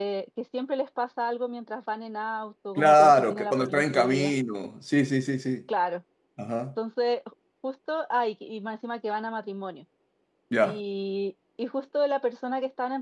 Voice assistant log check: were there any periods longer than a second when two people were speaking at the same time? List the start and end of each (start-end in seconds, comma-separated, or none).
2.8-4.3